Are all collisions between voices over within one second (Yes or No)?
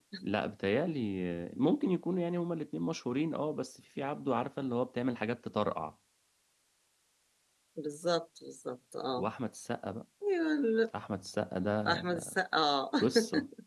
Yes